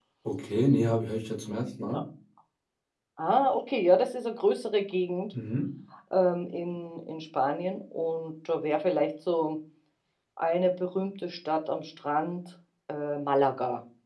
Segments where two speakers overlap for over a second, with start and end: none

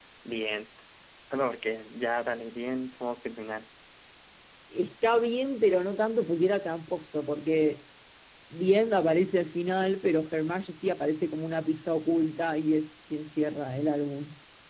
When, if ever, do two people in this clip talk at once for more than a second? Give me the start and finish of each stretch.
none

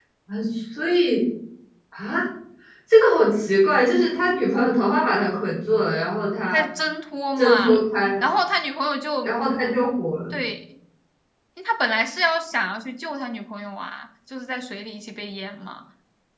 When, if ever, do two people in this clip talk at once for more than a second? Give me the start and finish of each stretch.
none

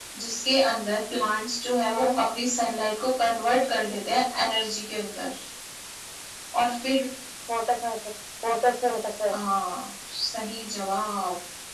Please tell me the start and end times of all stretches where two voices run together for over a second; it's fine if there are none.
none

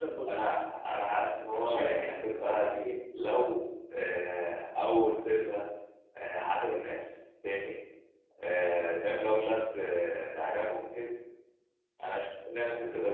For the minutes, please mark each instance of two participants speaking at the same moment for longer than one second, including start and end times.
1.5-2.8

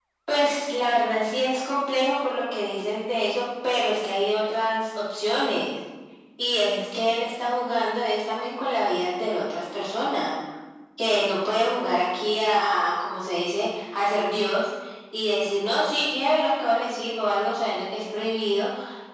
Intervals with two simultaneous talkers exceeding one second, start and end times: none

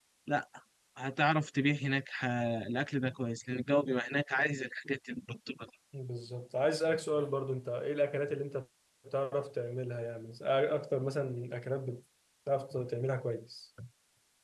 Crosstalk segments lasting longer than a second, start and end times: none

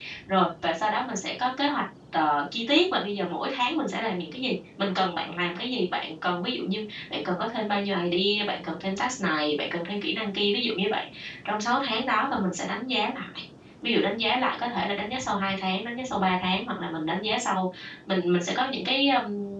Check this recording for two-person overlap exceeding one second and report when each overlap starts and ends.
none

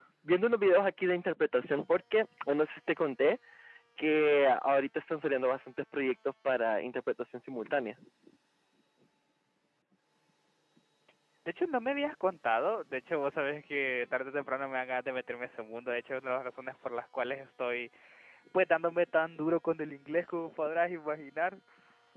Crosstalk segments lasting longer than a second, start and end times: none

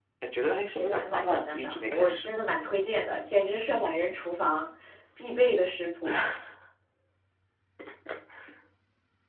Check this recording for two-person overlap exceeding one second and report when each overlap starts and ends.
0.8-2.3

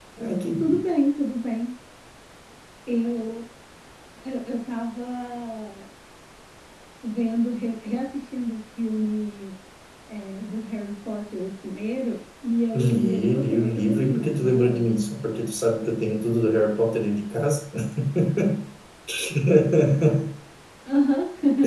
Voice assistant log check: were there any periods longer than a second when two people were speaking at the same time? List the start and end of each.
12.8-14.8

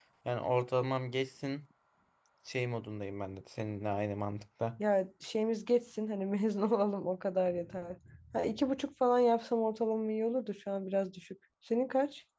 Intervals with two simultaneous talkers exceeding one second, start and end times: none

